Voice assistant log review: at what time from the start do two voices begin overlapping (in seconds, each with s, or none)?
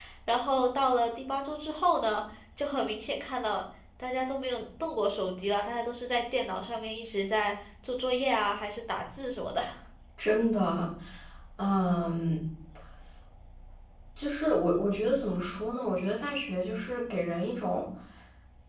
none